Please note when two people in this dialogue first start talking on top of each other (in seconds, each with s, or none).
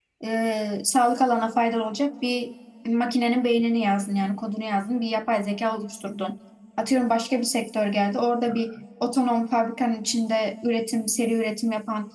none